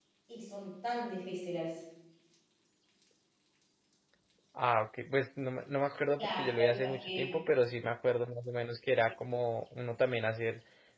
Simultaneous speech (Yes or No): Yes